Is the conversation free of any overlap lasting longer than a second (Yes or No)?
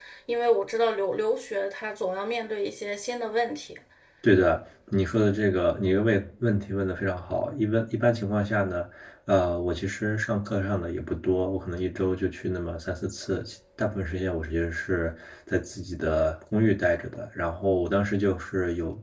Yes